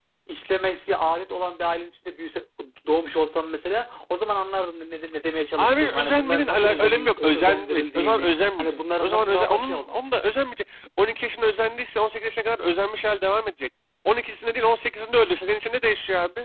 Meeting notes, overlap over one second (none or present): present